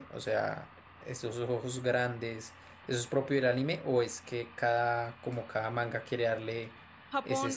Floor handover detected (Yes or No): Yes